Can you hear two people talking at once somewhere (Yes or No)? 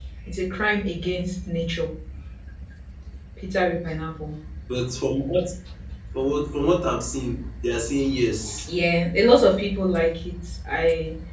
No